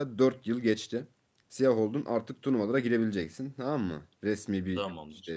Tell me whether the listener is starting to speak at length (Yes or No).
No